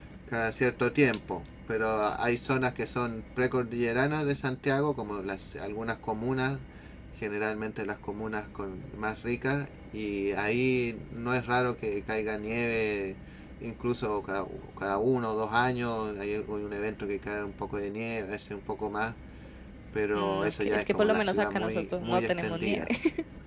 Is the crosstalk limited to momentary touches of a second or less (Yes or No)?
No